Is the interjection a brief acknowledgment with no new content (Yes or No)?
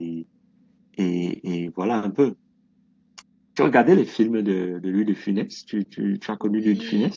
No